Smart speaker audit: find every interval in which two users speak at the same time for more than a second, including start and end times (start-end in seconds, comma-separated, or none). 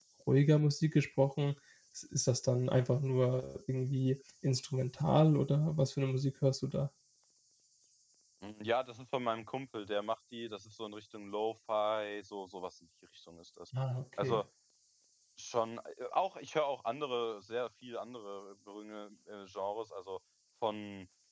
none